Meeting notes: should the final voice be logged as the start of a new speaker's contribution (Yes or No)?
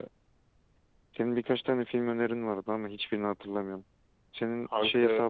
No